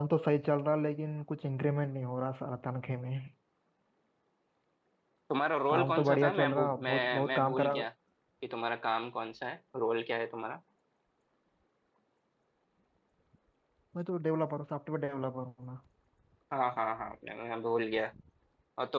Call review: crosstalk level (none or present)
present